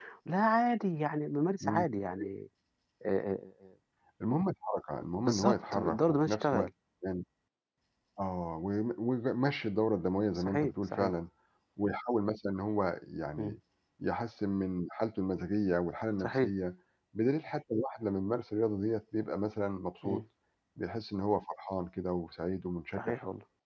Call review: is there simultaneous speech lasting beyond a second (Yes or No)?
Yes